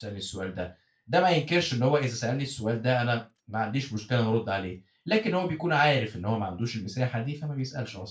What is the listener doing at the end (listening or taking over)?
taking over